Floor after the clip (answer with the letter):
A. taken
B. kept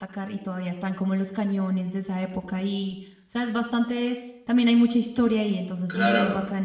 A